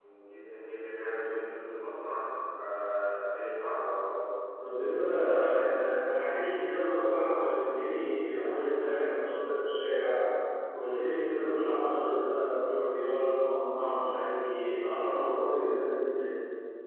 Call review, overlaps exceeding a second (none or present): none